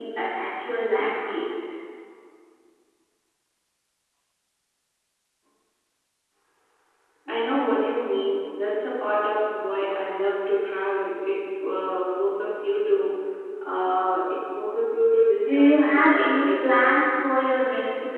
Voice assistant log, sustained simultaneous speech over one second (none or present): present